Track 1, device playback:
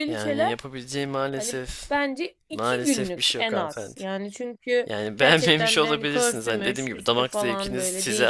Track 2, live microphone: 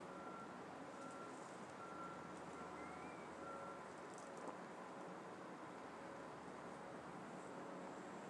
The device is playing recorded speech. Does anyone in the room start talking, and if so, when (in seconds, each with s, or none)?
none